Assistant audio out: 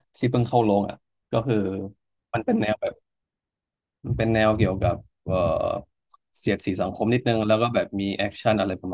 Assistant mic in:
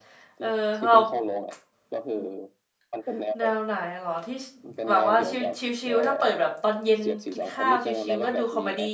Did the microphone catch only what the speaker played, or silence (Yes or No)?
No